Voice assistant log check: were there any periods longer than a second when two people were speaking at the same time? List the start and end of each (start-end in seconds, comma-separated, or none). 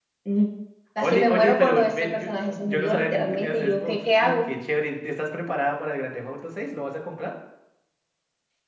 1.0-4.3